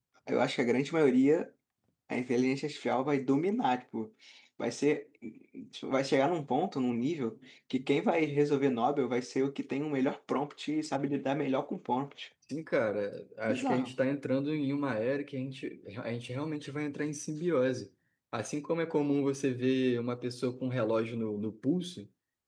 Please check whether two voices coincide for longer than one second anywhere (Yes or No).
No